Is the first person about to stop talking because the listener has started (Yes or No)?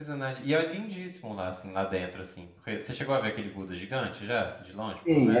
Yes